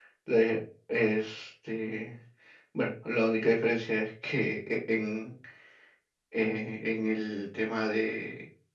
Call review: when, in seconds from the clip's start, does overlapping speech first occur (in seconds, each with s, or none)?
none